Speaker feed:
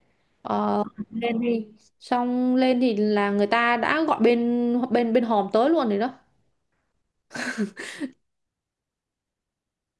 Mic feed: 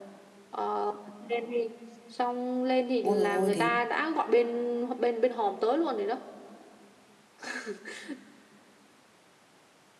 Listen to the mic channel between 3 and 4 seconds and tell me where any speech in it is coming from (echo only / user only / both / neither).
both